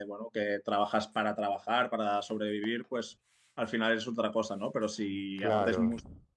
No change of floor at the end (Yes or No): Yes